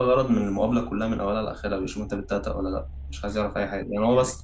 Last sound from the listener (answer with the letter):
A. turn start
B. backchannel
B